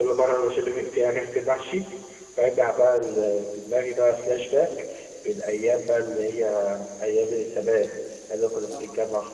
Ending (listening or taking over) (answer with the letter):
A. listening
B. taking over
A